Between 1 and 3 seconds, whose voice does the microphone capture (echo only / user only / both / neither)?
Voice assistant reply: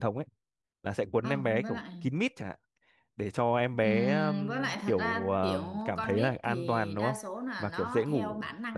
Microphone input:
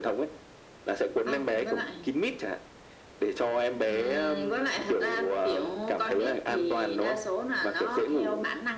echo only